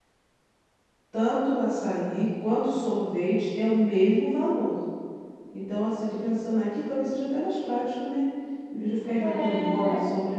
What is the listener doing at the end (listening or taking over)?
listening